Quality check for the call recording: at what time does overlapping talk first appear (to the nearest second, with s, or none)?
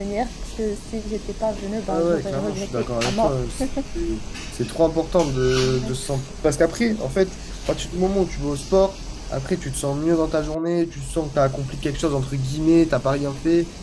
2 s